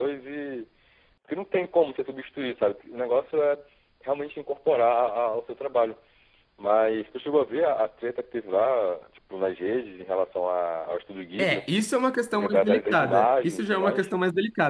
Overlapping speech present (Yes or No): Yes